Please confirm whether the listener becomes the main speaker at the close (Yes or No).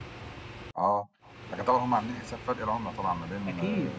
Yes